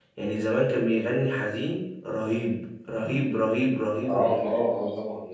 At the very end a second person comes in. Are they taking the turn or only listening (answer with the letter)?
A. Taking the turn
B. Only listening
A